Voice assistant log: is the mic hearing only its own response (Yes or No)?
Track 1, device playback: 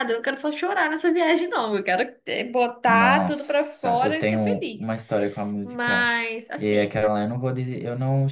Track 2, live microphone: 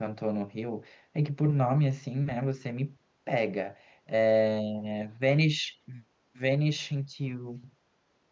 No